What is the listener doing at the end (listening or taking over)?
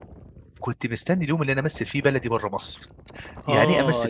taking over